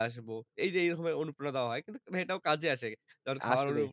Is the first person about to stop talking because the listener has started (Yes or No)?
No